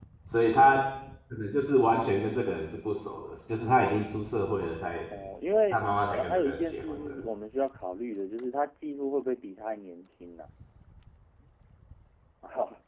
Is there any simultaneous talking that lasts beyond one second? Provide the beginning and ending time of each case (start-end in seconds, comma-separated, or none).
5.7-7.2